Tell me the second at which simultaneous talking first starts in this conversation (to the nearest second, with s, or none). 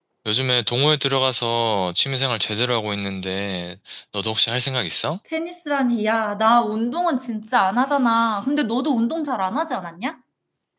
none